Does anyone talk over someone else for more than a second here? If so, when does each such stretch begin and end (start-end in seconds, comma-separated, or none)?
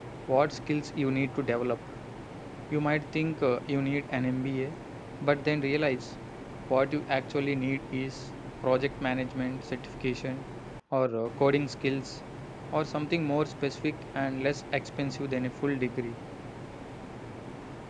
none